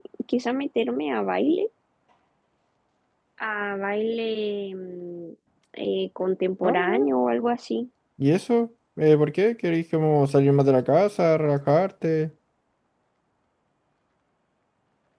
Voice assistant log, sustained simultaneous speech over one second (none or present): none